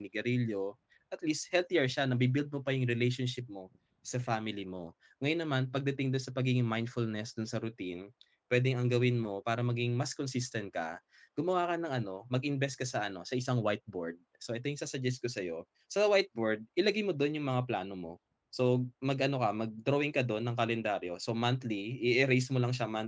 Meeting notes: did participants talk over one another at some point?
No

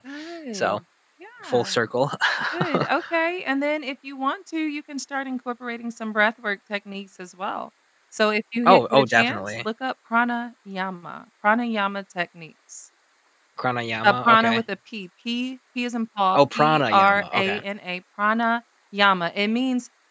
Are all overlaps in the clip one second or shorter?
No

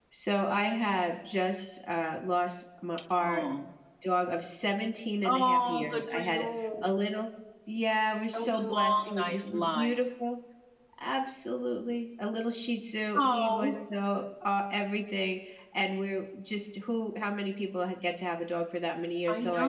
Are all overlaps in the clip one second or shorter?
No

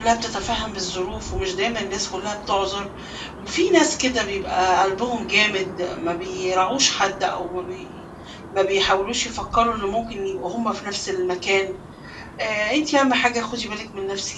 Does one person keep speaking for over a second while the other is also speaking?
No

